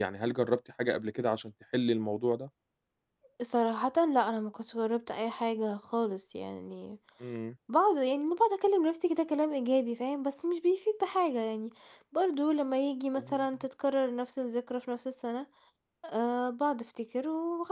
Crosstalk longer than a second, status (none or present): none